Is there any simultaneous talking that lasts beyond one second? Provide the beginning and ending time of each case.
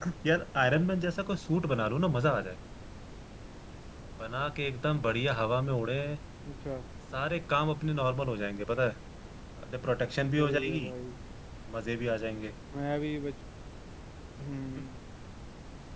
none

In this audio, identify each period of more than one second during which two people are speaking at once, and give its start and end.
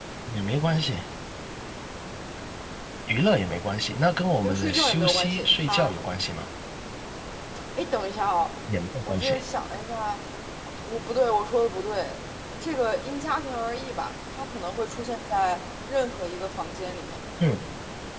4.4-5.9

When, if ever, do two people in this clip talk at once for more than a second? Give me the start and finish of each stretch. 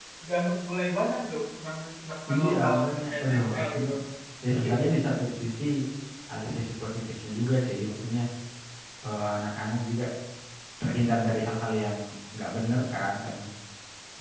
2.3-3.9

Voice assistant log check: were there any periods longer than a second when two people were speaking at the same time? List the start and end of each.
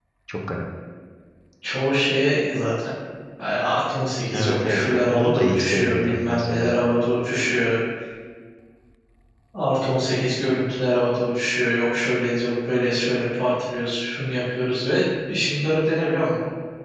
4.3-6.8

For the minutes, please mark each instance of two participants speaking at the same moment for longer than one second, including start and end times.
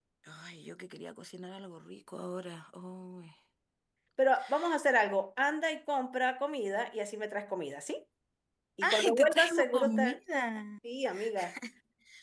8.8-10.2

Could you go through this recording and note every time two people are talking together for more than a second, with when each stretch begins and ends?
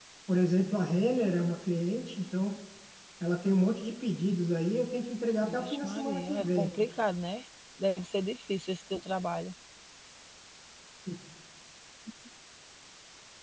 5.4-6.7

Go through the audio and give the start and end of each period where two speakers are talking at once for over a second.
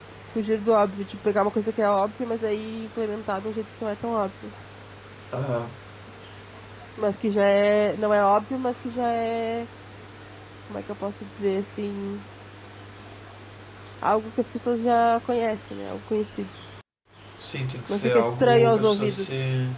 17.9-19.3

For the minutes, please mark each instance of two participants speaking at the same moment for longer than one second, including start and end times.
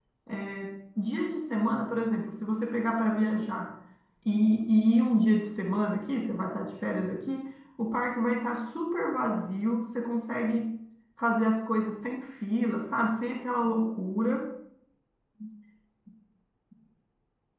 none

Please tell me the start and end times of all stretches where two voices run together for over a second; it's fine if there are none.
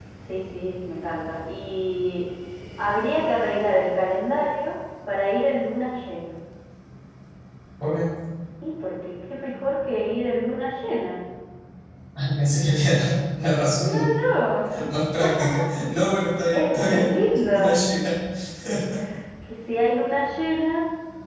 16.5-17.7

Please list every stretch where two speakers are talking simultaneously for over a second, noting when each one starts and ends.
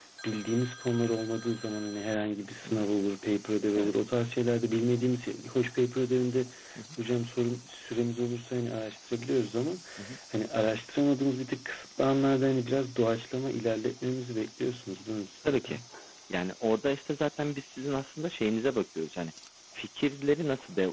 none

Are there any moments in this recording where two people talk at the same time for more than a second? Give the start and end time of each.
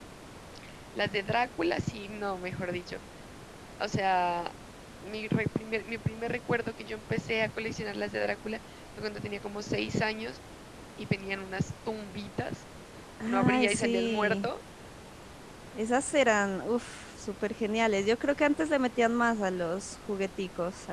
13.3-14.5

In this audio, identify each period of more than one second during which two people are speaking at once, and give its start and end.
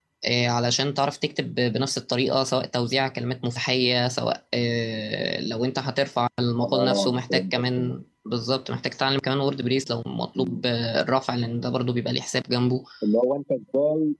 6.6-7.9

